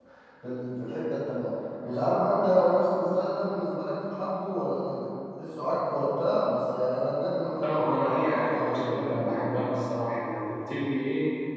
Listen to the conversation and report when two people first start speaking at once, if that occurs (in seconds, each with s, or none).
7.6 s